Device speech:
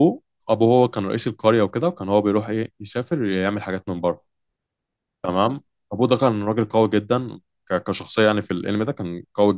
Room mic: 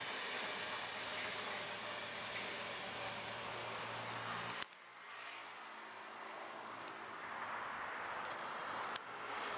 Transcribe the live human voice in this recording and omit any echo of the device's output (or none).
none